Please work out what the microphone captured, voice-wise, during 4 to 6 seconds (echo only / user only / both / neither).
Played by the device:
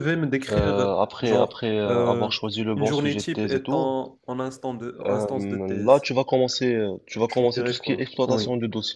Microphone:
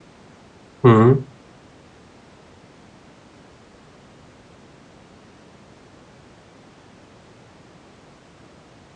neither